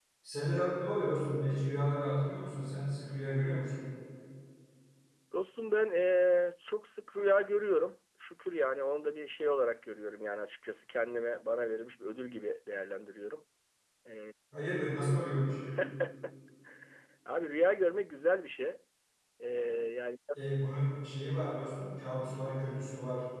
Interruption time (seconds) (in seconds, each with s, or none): none